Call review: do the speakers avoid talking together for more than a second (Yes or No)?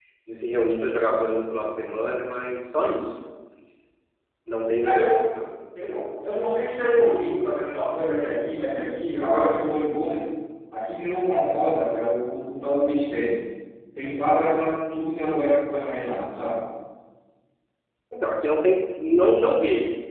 Yes